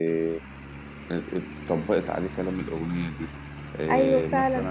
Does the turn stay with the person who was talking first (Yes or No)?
No